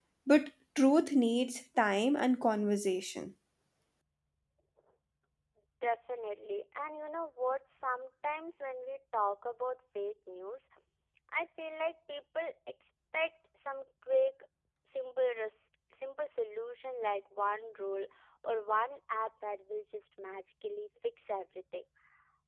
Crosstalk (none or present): none